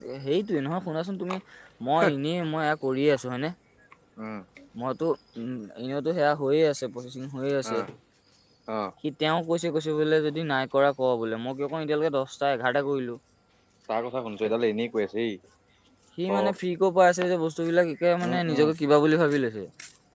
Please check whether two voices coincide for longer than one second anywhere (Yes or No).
No